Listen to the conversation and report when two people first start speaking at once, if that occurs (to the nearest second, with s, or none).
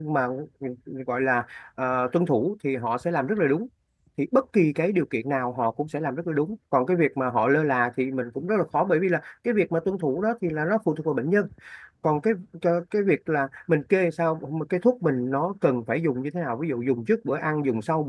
none